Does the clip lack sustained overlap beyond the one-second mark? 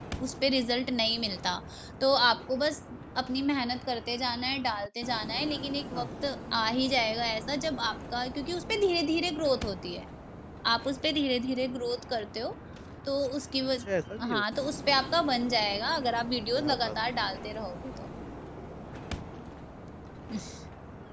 Yes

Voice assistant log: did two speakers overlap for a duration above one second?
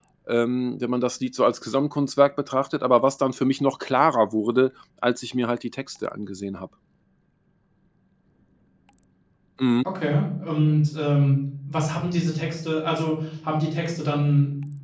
No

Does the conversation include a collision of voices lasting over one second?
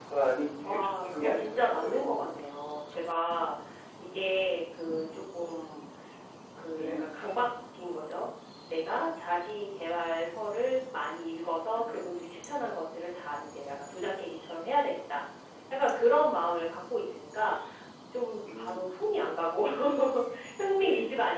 Yes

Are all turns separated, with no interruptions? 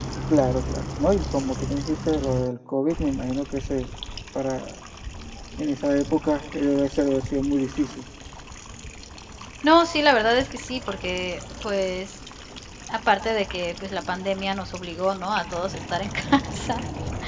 Yes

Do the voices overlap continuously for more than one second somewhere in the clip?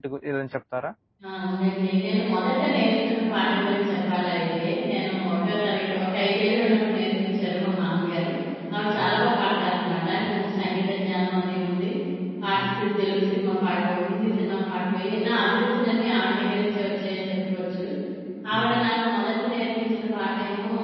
No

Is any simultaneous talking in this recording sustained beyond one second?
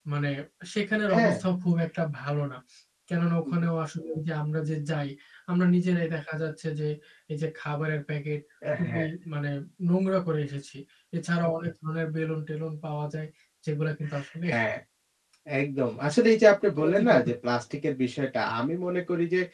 No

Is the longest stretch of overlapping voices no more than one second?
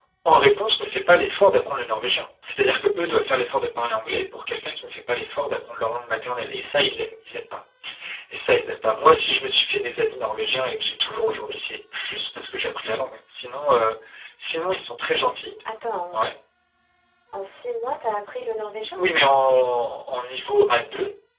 Yes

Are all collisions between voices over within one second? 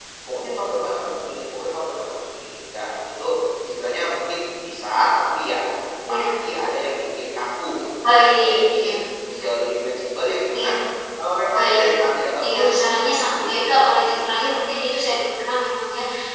No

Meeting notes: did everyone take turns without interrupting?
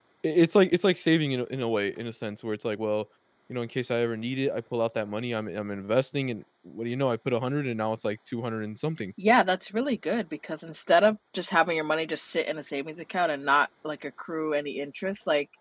Yes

